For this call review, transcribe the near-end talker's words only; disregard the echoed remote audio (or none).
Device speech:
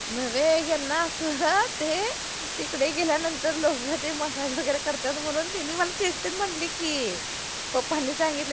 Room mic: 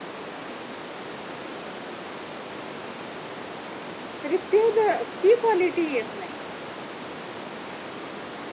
तरी त्यो बघ ती क्वालिटी येत नाही.